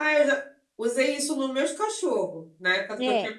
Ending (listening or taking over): taking over